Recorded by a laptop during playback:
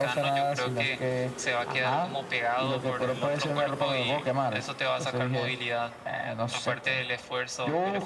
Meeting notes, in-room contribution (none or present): none